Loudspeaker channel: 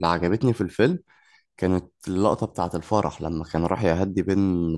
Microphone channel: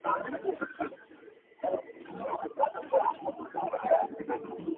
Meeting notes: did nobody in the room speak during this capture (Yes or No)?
Yes